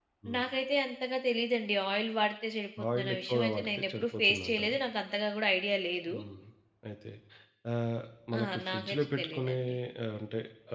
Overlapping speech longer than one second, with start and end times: 3.0-4.8, 8.4-9.6

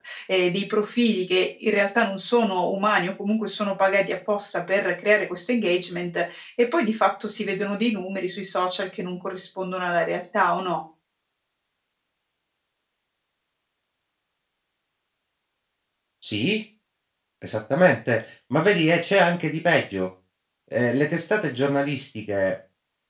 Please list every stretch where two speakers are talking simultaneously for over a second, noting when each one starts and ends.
none

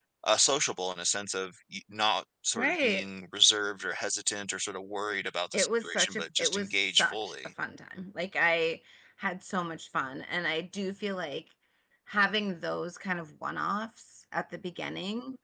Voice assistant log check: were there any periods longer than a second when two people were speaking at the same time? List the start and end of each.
5.5-7.3

